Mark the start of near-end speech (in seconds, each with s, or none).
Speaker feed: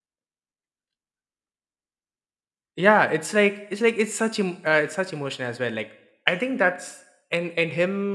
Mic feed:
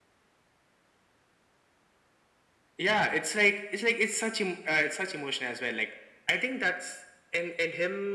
none